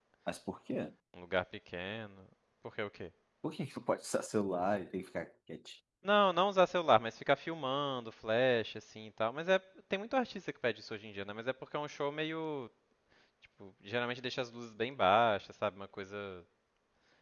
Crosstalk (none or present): none